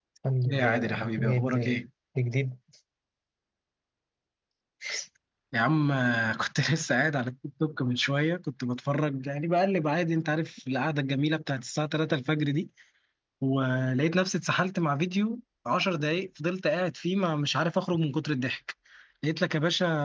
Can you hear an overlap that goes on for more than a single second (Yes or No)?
Yes